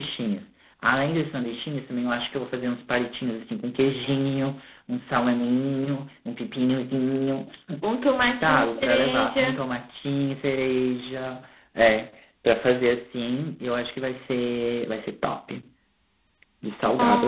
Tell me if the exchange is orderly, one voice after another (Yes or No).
No